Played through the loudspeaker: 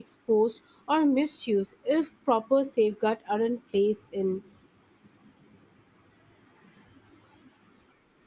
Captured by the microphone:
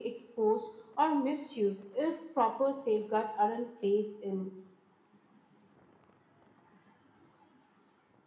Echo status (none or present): present